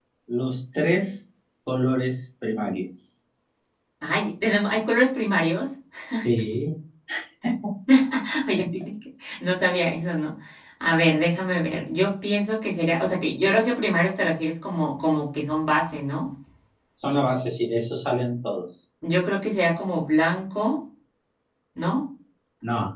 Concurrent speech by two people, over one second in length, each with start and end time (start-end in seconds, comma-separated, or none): none